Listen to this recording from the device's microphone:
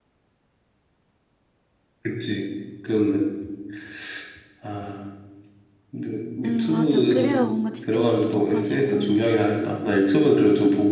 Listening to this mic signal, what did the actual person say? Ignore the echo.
음, 맞아. 그래야 뭔가 집중력도 높아지고,

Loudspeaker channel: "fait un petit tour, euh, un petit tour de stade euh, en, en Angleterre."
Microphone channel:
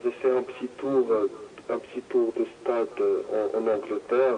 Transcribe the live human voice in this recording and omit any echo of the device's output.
none

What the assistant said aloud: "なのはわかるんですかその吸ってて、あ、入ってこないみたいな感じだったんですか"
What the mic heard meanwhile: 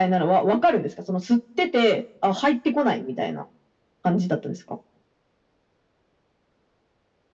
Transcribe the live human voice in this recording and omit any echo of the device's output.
none

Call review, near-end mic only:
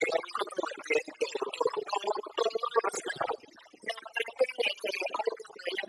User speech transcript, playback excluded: none

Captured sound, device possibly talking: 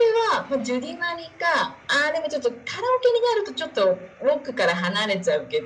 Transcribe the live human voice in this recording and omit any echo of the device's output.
none

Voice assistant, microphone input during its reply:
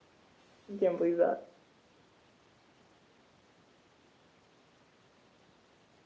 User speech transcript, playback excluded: I can't believe that.

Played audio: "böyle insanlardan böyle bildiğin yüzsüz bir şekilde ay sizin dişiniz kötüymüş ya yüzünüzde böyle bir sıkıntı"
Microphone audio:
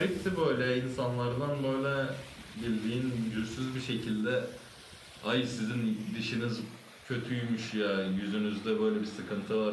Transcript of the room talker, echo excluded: none

